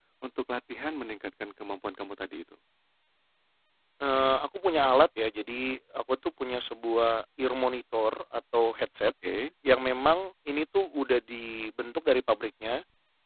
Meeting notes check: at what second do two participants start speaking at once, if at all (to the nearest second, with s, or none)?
none